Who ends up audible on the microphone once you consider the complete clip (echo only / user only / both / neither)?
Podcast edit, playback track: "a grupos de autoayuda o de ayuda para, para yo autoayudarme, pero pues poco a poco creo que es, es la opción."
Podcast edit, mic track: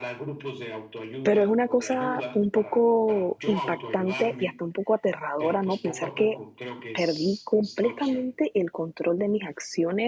both